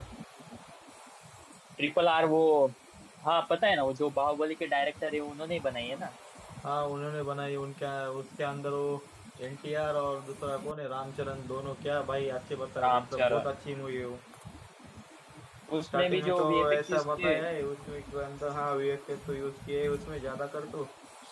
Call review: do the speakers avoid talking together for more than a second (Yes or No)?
No